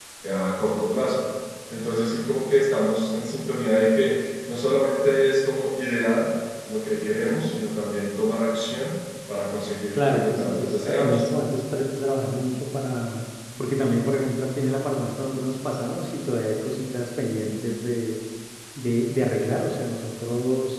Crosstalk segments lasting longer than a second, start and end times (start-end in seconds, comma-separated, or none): 9.9-11.2